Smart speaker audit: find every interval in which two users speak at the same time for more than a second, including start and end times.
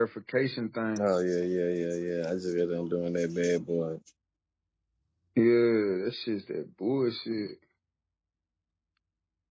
none

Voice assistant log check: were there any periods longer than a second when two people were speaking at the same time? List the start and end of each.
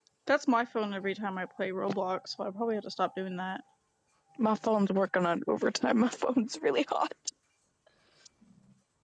none

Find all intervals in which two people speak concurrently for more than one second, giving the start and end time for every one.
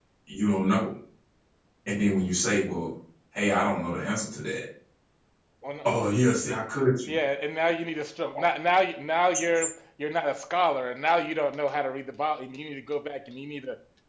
none

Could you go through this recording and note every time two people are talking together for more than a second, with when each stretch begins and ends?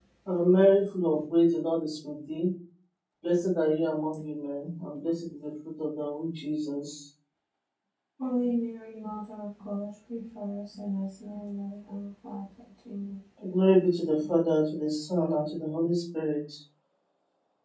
none

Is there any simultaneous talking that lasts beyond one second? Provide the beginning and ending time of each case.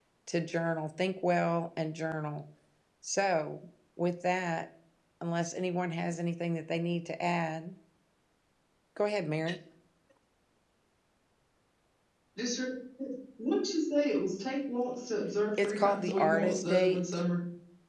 15.6-17.2

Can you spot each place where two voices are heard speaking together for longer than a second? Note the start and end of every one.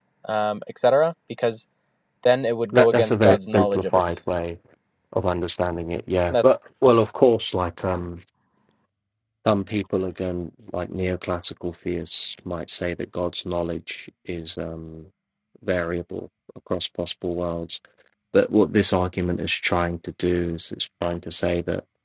2.7-4.0

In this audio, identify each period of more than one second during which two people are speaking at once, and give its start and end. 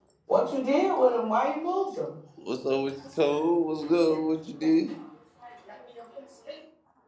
none

